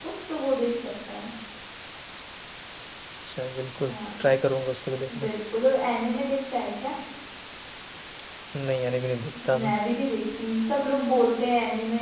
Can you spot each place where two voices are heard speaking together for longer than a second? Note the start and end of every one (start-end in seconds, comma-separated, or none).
none